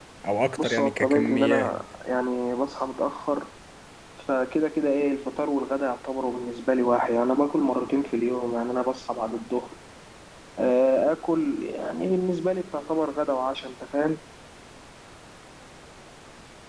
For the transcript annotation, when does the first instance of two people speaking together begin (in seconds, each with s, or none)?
0.6 s